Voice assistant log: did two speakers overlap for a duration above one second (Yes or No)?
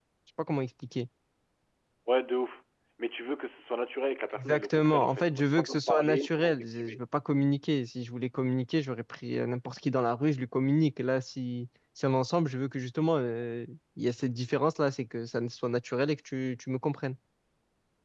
Yes